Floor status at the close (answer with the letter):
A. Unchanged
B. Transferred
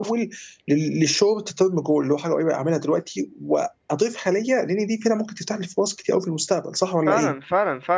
B